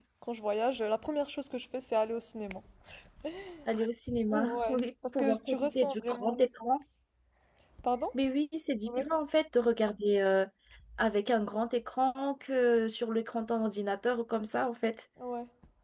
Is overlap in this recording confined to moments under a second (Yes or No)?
No